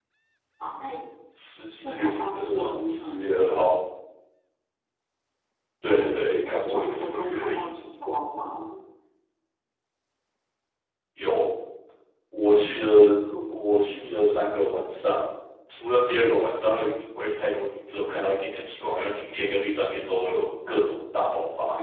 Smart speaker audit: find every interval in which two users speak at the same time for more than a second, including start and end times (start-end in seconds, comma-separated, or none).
1.8-3.1, 5.9-7.6